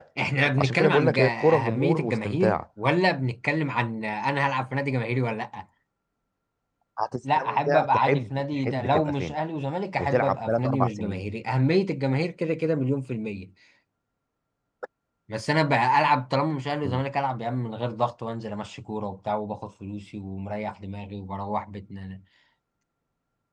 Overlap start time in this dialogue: 0.6 s

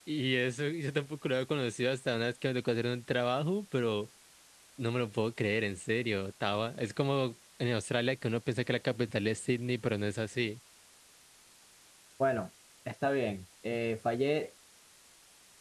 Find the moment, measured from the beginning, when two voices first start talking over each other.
none

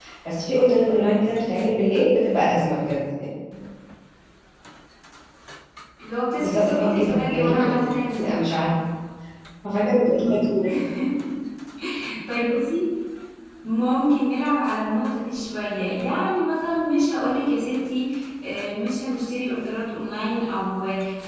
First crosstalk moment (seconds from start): 6.4 s

